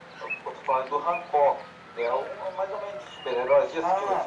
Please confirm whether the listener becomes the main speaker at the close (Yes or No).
Yes